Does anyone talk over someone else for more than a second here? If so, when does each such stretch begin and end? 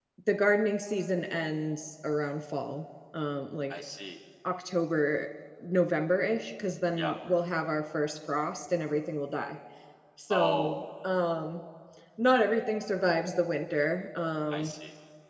none

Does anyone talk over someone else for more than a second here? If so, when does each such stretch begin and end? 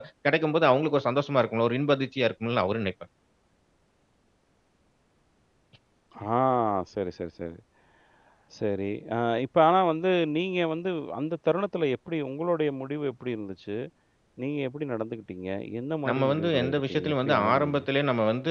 16.1-17.8

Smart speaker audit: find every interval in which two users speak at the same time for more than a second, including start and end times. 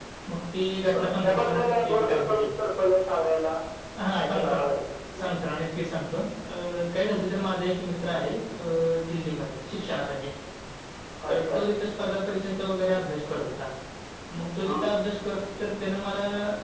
0.9-2.4

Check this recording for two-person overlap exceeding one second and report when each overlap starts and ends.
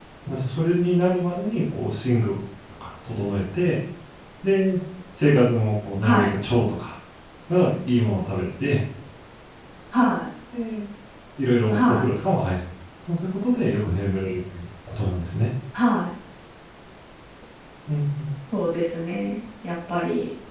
none

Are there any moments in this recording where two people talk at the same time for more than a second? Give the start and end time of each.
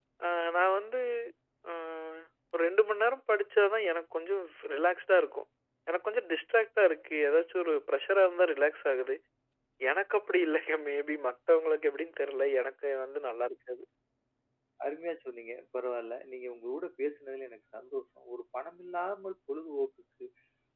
none

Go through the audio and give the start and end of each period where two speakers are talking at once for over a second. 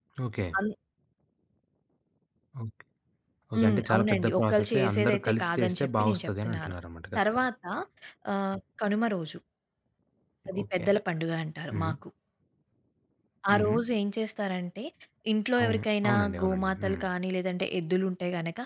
3.5-6.7, 15.6-17.0

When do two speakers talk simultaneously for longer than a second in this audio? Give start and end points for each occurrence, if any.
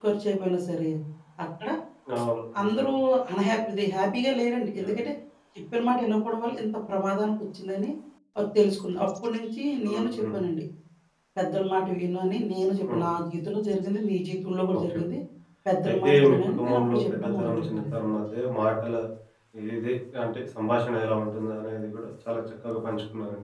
15.9-17.9

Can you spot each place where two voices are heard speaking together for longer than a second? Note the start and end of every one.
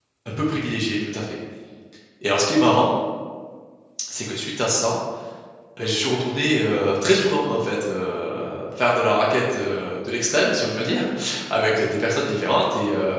none

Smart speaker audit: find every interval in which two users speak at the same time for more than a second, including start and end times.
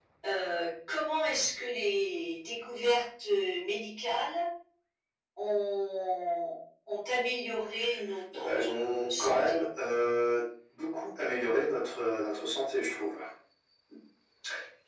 8.3-9.6

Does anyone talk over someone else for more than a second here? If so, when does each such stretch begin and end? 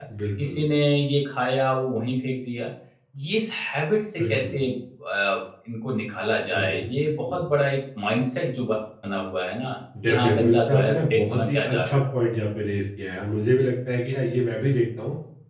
10.1-12.0

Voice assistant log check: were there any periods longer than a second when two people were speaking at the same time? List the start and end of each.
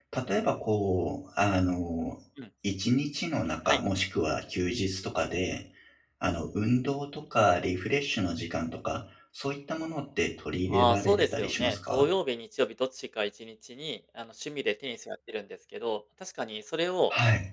10.7-12.1

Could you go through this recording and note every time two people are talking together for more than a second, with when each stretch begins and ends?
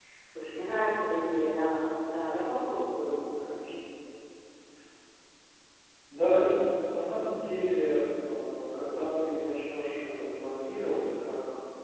none

